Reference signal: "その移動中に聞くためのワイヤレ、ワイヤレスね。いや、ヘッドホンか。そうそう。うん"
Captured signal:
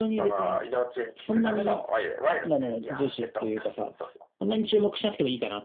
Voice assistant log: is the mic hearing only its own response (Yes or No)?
No